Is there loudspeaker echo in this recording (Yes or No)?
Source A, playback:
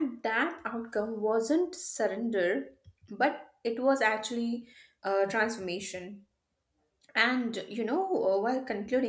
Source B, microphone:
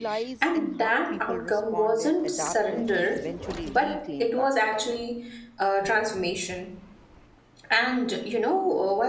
Yes